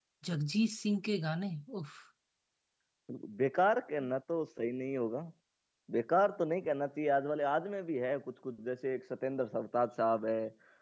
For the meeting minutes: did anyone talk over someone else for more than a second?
No

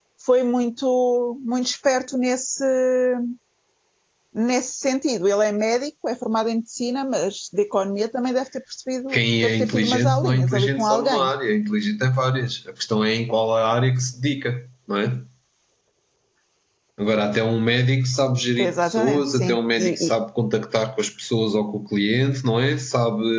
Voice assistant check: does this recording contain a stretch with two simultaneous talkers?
Yes, from 9.1 s

